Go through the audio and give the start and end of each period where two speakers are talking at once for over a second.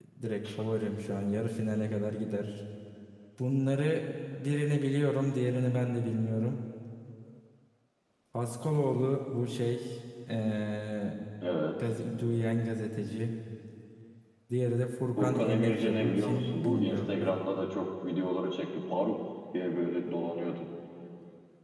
15.2-17.3

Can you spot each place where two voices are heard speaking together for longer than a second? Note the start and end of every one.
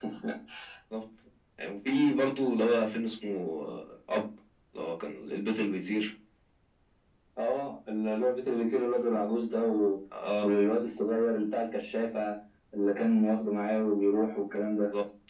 none

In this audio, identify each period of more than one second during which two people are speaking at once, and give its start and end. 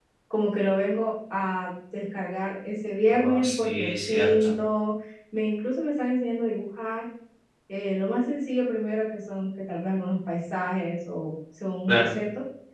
3.1-4.5

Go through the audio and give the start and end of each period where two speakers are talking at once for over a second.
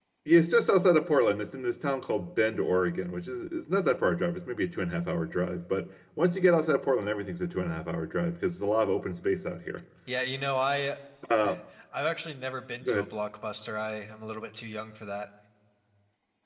none

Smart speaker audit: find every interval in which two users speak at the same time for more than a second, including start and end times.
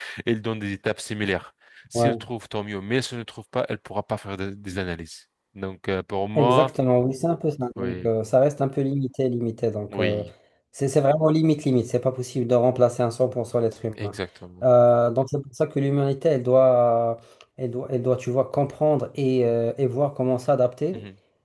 none

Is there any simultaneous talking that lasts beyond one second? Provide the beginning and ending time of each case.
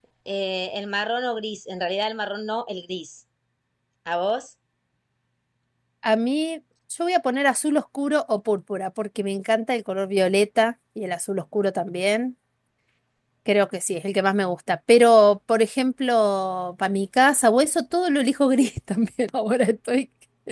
none

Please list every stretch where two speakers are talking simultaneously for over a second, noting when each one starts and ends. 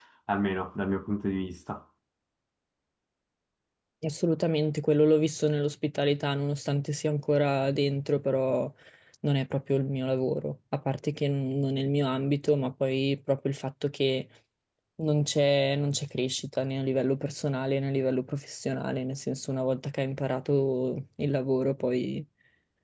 none

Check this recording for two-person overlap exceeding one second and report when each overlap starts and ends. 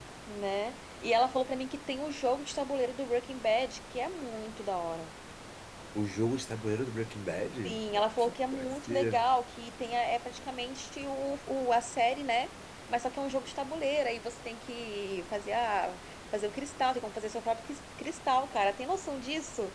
7.7-9.2

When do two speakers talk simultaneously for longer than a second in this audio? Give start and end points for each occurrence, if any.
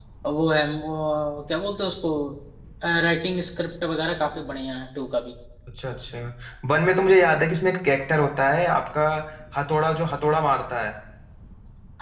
none

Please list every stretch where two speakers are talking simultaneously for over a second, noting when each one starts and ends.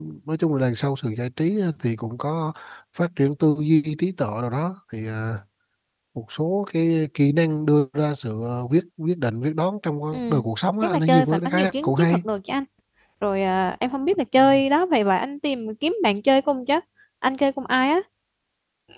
10.8-12.2

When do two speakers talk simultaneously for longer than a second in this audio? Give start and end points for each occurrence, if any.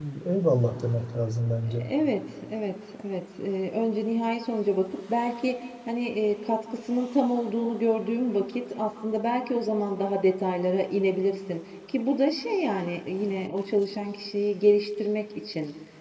none

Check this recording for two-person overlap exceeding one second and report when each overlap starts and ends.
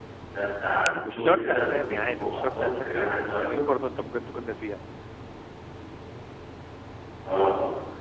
1.0-3.6

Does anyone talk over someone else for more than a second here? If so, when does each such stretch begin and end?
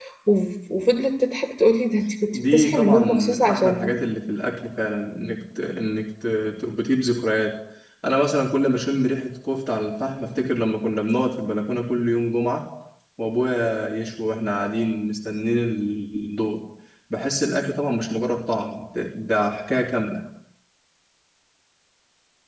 2.3-3.9

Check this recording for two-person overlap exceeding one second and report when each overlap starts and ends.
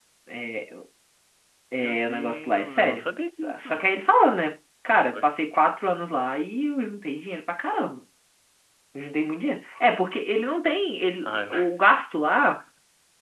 1.7-3.7

